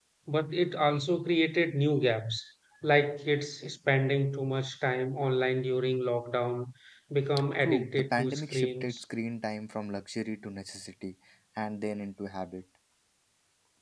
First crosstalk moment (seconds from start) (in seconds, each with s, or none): 7.6 s